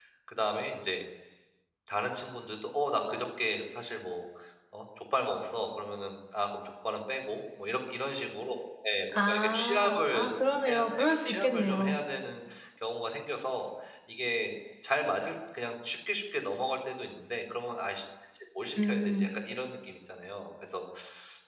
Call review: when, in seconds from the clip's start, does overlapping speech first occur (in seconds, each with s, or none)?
9.3 s